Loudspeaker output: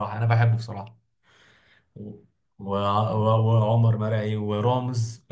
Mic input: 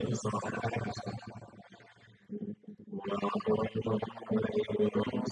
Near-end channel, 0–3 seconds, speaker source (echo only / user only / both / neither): echo only